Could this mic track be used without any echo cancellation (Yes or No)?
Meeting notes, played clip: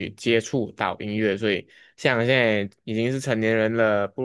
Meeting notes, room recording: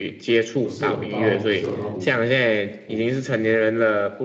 No